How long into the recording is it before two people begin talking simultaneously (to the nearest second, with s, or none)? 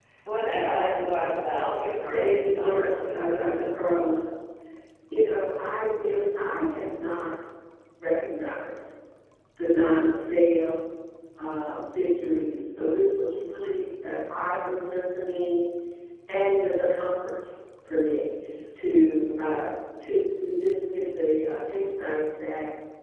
2 s